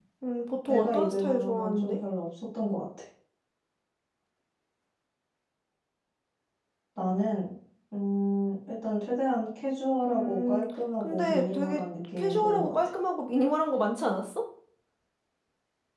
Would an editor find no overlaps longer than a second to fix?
No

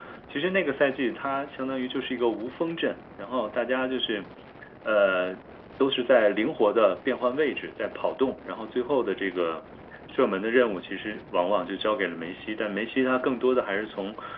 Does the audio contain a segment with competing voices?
No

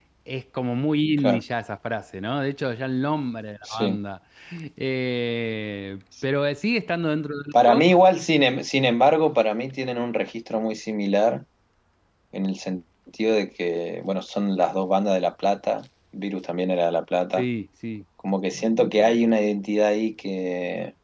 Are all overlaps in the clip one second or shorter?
Yes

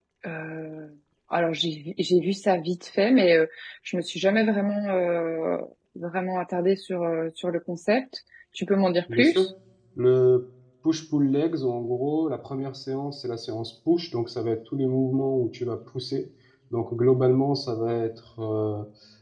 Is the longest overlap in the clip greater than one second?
No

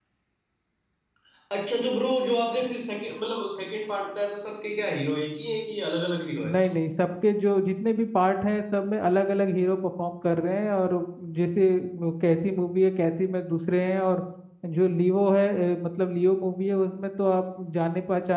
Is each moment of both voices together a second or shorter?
Yes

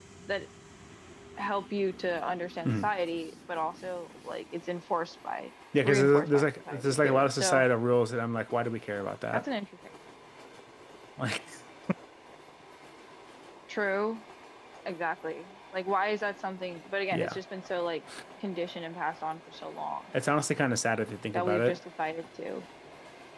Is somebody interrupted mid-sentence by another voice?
Yes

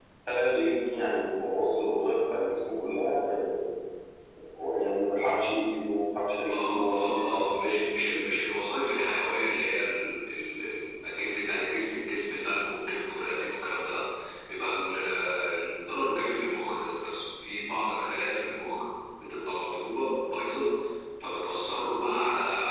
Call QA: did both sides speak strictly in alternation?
No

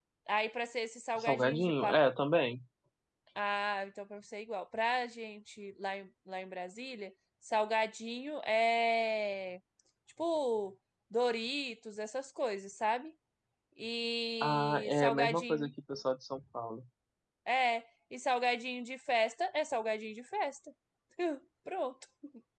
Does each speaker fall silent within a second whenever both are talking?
No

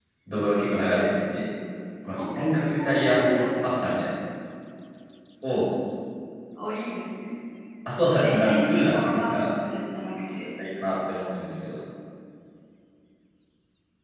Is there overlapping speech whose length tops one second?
Yes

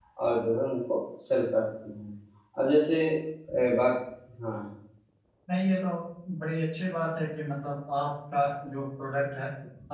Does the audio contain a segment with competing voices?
No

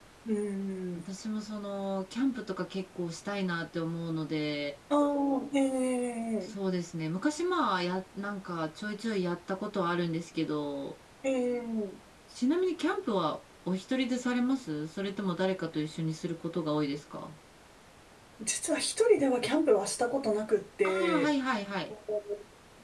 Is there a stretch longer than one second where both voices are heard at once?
No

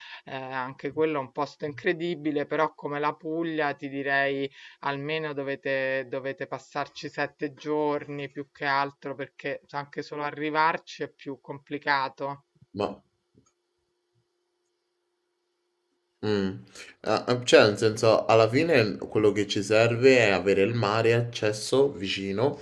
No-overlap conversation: Yes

